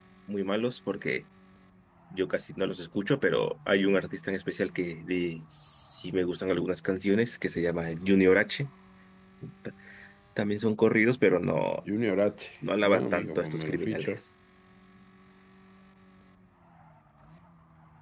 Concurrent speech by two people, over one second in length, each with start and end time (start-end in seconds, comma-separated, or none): 12.8-14.2